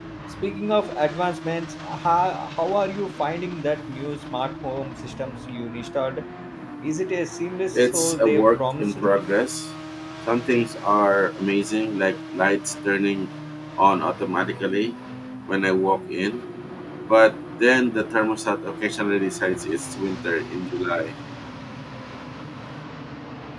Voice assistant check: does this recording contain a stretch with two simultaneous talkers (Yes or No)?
Yes